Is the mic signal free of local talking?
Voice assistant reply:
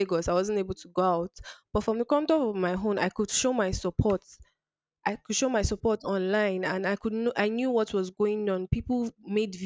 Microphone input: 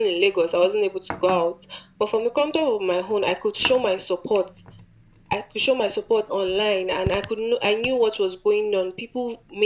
Yes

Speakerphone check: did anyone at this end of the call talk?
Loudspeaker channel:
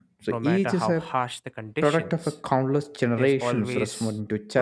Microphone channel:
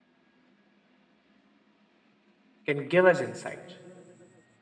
Yes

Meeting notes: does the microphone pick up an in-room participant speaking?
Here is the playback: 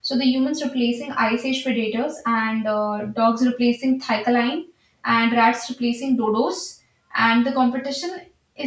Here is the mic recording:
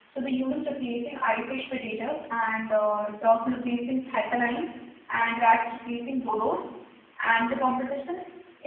No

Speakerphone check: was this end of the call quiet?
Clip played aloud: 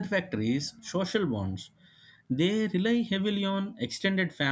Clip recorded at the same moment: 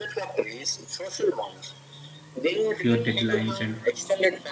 No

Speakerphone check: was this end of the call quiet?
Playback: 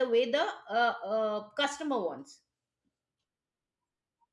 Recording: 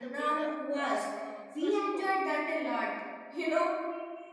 No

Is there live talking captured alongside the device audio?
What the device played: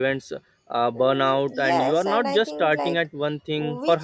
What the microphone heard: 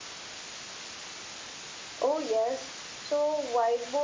Yes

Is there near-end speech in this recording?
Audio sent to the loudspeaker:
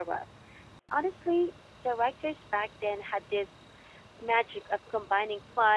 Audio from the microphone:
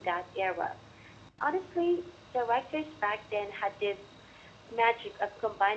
No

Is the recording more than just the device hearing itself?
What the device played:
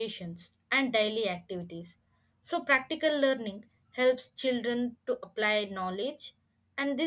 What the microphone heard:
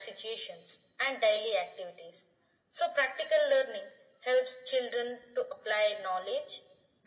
No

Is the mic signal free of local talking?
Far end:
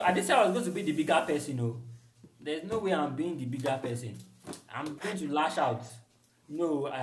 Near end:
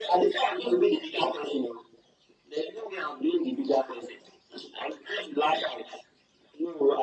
Yes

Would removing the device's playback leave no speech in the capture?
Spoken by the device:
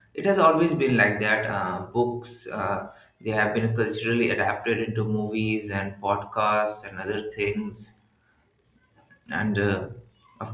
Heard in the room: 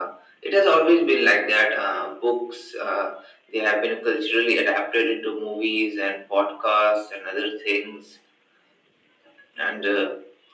Yes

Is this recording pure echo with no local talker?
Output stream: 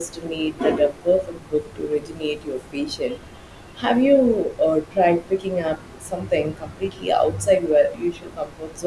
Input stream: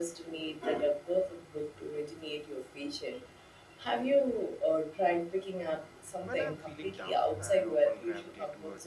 No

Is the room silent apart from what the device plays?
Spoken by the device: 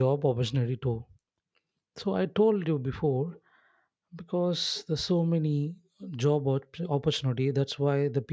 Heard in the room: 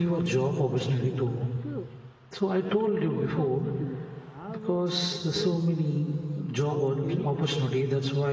No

